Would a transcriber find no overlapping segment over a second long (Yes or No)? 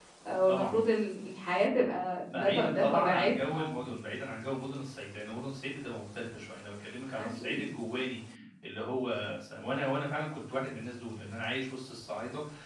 No